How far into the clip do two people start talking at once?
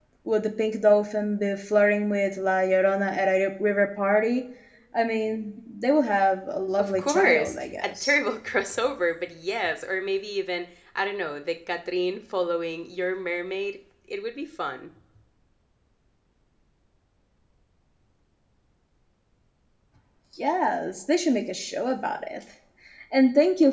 6.8 s

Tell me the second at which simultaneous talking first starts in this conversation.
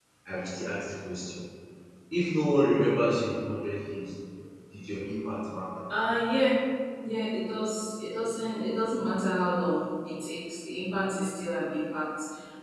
none

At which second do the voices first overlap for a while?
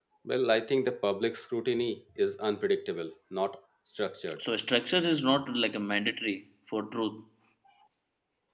none

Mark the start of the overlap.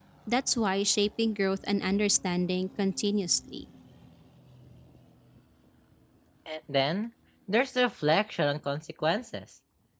none

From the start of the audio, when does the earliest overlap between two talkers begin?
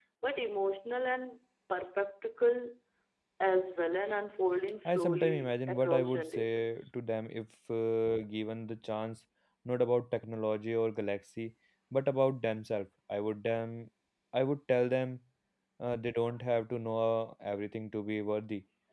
4.8 s

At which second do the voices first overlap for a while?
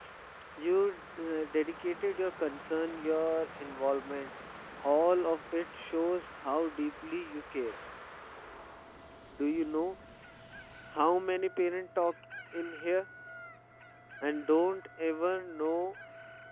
none

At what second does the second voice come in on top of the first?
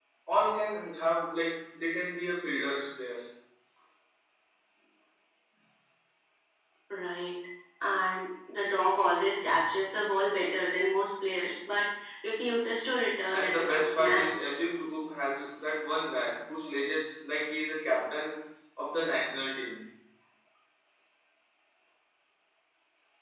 13.3 s

